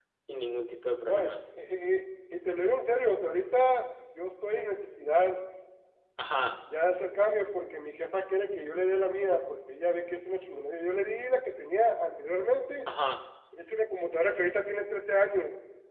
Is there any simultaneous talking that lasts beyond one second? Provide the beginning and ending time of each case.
none

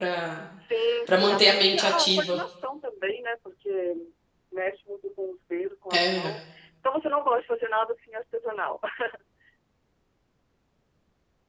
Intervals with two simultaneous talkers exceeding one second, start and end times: 1.1-2.4

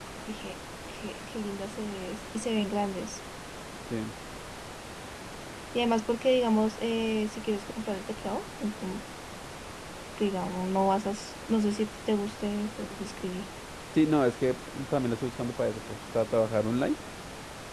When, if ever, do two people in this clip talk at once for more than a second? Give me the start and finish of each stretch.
none

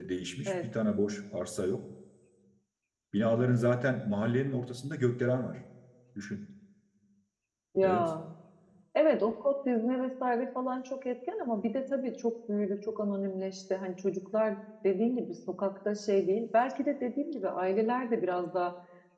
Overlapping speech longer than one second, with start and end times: none

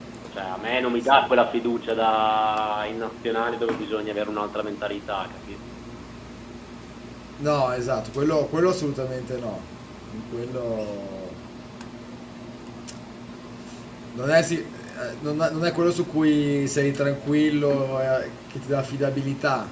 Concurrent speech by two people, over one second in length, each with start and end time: none

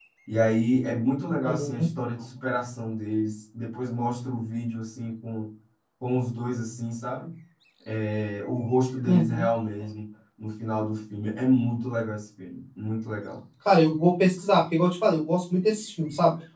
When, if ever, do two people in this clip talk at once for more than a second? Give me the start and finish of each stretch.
none

